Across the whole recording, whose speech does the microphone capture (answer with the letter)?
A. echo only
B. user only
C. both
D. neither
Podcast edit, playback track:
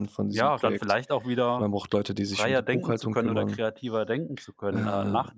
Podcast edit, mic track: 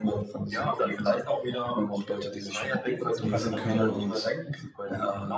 C